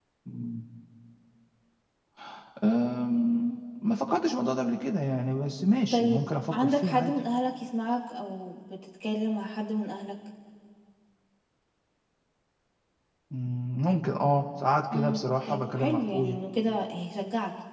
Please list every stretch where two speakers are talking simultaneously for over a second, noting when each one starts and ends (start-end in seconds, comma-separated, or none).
5.9-7.2, 14.9-16.4